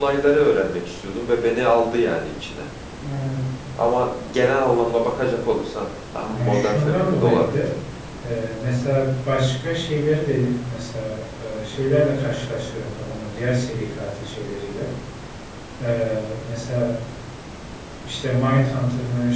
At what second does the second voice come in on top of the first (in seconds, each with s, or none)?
6.3 s